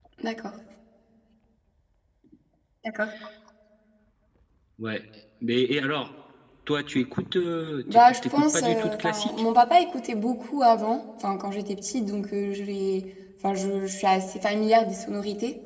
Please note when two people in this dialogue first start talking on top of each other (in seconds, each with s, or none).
7.9 s